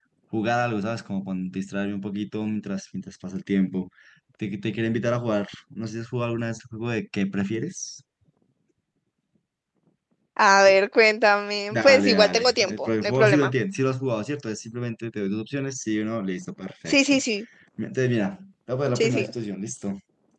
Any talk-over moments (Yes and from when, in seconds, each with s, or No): Yes, from 11.7 s